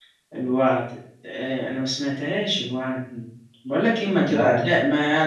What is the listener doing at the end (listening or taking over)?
listening